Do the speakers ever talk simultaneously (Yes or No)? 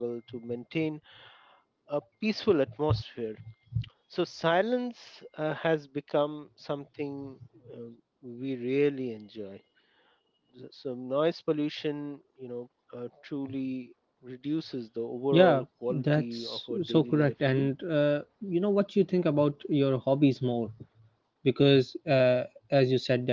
Yes